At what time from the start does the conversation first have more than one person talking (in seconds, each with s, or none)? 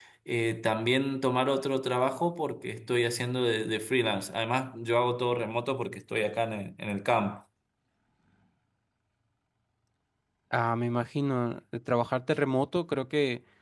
none